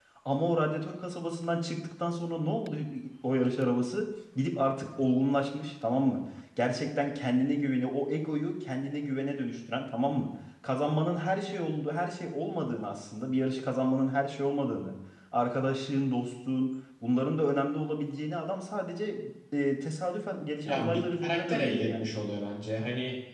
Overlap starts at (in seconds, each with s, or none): 20.6 s